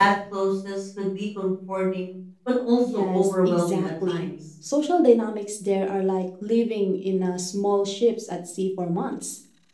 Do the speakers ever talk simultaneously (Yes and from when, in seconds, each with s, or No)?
Yes, from 2.8 s